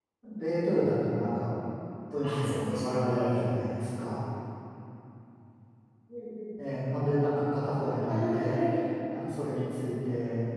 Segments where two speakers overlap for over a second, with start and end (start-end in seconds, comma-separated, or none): 2.2-3.5